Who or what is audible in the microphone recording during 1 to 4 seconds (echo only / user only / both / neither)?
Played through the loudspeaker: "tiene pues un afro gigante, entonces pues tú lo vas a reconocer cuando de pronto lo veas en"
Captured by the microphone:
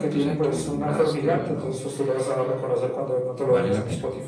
both